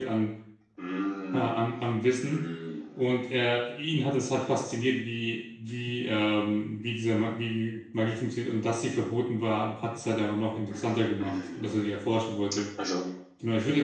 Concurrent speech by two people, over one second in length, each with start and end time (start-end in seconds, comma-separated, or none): none